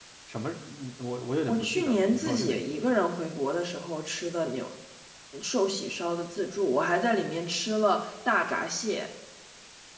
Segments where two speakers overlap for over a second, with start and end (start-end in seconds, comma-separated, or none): 1.5-2.9